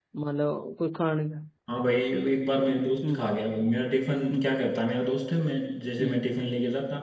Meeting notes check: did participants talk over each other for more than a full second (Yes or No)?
No